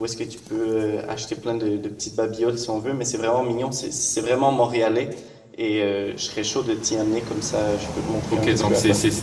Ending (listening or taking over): taking over